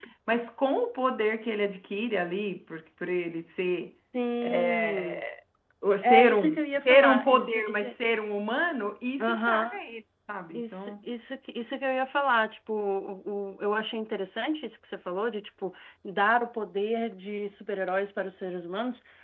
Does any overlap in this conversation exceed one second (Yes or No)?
Yes